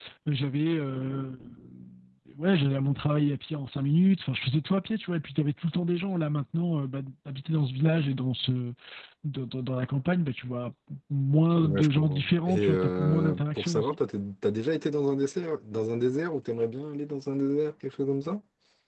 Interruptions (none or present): present